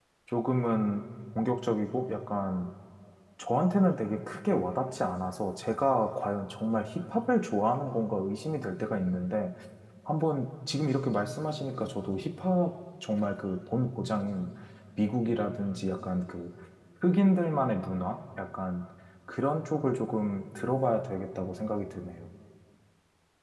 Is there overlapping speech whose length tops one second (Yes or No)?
No